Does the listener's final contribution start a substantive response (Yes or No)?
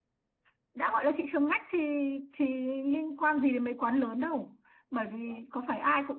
No